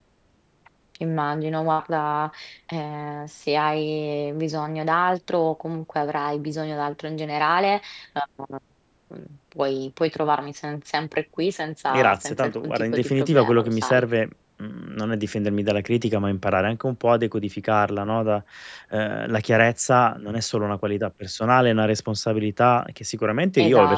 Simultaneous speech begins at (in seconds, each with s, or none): 11.9 s